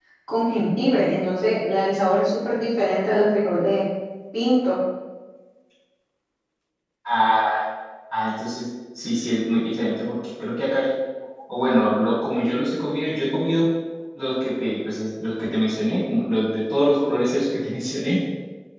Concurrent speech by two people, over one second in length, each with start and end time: none

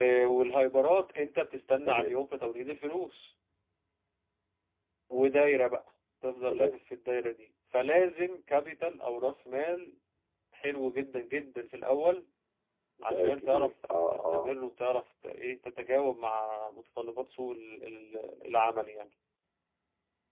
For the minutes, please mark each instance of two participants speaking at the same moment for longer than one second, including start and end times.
13.0-14.6

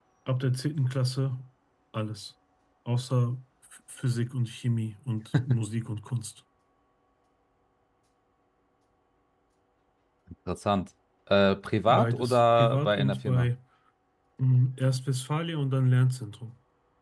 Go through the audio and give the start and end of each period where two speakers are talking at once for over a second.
11.9-13.5

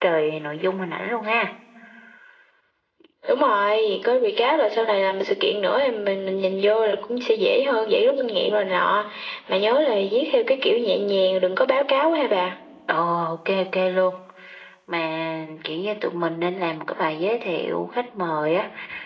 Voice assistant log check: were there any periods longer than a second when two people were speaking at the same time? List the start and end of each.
none

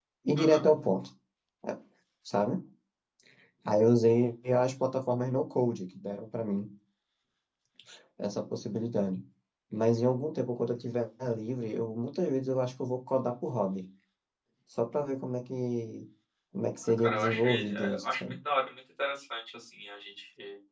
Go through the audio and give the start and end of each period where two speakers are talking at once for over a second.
17.0-18.2

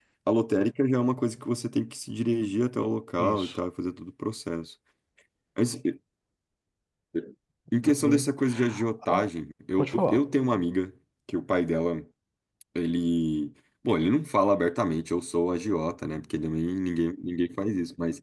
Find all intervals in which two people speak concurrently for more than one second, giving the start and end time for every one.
none

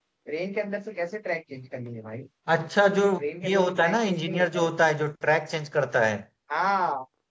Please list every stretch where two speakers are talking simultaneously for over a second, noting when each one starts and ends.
3.4-4.7

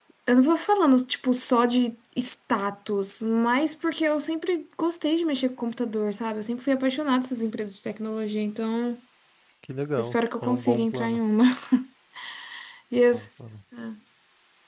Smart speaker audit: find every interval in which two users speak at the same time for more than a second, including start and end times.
10.0-11.2

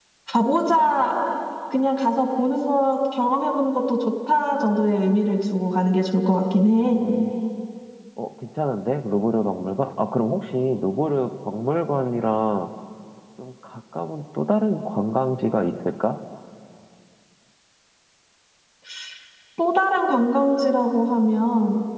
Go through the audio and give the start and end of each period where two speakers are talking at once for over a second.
none

